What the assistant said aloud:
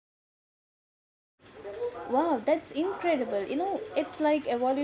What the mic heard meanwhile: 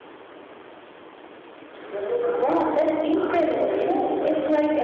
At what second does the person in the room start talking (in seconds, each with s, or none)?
none